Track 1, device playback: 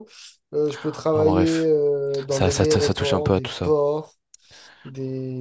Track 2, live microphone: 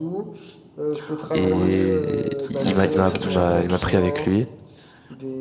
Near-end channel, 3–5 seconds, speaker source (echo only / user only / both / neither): both